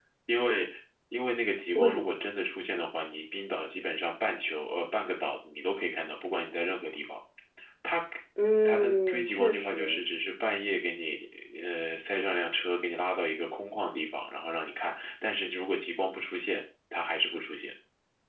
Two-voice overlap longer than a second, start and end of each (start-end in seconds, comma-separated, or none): 8.7-10.0